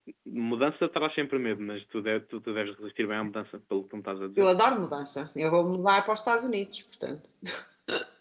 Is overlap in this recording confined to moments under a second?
Yes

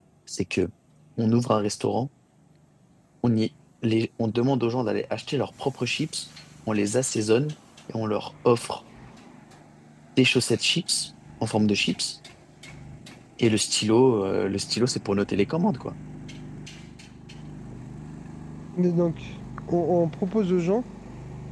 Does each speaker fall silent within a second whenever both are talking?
Yes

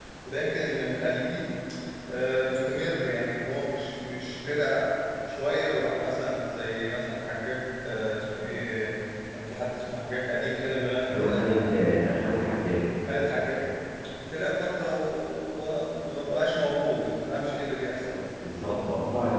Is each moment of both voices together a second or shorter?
Yes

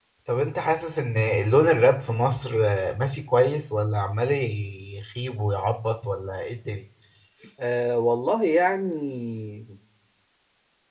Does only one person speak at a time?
Yes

